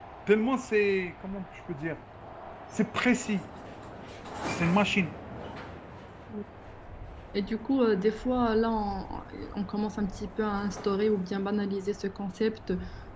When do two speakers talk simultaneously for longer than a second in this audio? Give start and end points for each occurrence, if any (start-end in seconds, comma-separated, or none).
none